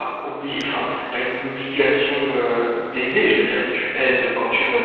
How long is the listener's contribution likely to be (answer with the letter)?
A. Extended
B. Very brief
A